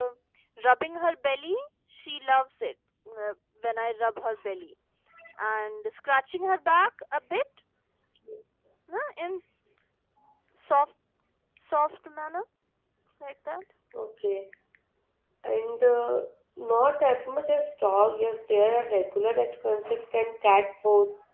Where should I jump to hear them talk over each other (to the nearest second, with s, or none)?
none